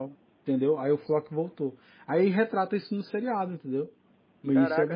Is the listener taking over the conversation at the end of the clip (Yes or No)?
Yes